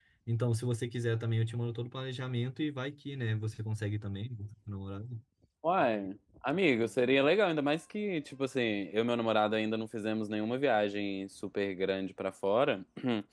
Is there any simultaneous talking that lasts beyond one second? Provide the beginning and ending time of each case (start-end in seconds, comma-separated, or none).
none